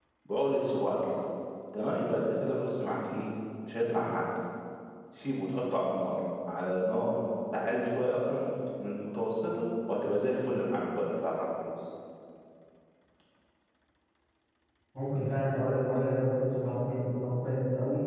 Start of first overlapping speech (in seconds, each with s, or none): none